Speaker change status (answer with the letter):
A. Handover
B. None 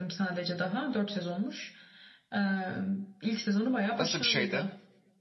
A